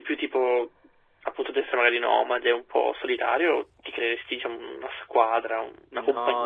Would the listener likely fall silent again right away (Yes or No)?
No